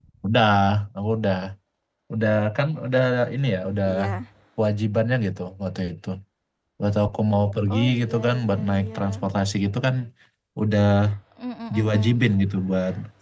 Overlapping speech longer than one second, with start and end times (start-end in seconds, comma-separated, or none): 7.7-9.0